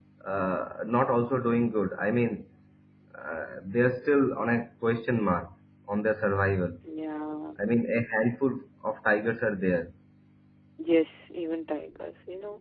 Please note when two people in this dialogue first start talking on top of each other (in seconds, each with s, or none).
none